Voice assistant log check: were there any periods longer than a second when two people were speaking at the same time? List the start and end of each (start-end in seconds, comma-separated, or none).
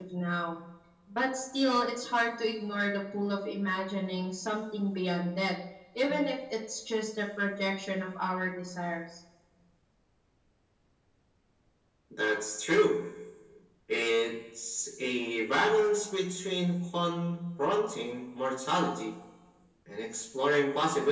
none